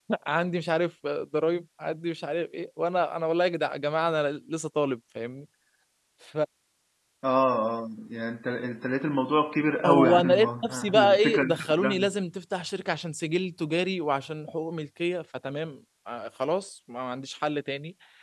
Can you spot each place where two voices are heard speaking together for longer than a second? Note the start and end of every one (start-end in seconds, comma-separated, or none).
9.8-12.1